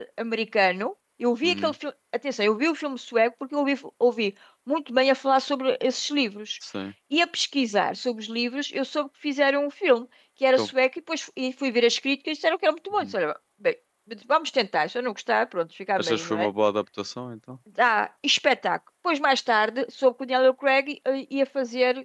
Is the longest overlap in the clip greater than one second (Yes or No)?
No